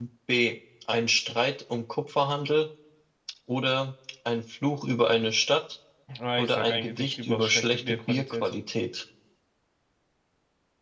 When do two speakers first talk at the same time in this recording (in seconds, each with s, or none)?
6.4 s